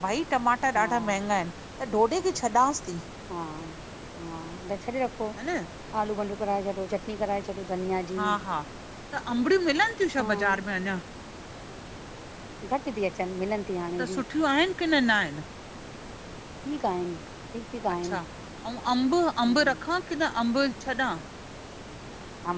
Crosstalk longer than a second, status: none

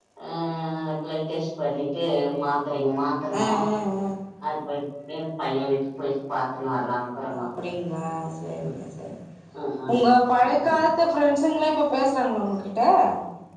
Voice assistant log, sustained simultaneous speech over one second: none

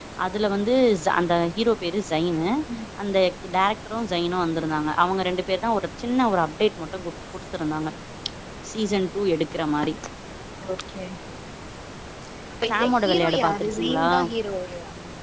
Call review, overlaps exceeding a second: present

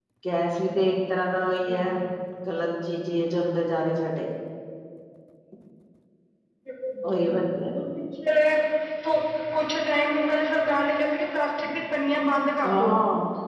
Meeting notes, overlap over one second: none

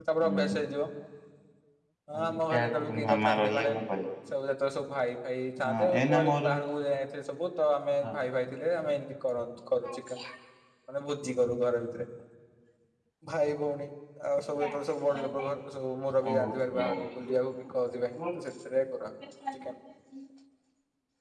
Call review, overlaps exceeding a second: present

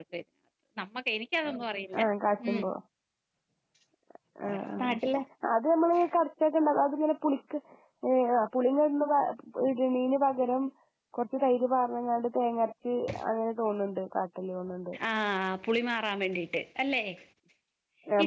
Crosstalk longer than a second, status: none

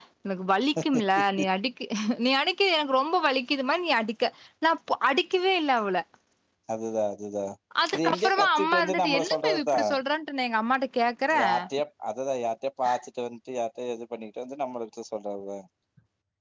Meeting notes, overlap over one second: present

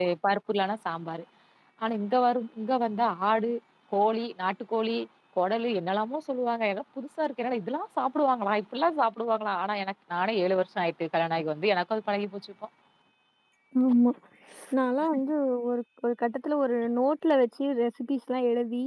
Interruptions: none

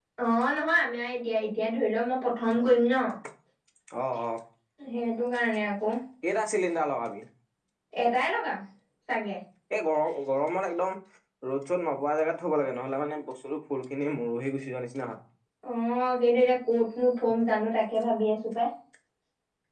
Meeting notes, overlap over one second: none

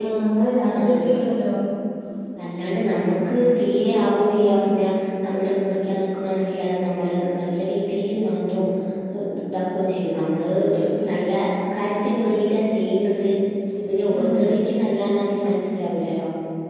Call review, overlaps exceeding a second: none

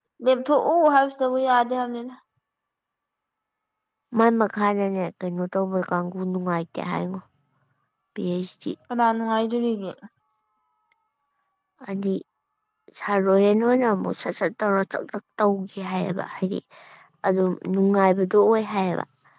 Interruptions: none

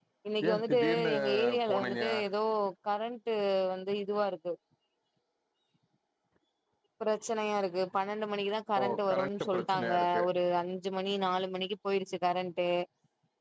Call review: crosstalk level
present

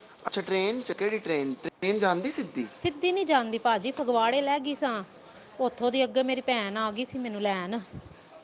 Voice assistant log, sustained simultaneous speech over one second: none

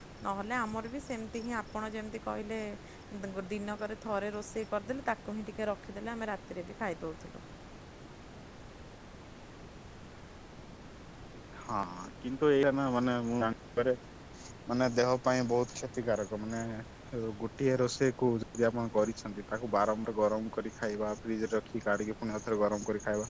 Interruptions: none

